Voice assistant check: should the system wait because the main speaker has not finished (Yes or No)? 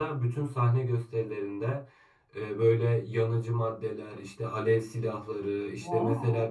Yes